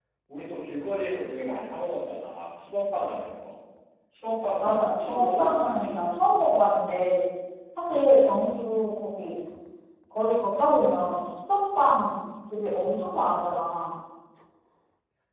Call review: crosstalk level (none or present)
present